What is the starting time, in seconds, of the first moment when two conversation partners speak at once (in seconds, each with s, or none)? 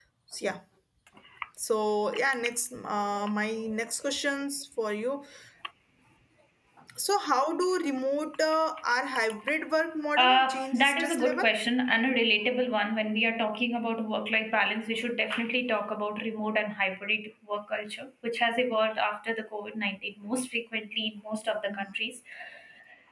10.2 s